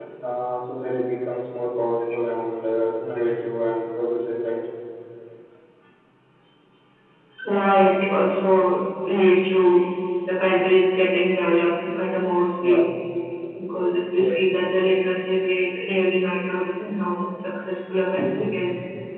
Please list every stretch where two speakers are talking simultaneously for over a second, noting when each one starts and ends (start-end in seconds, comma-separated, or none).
none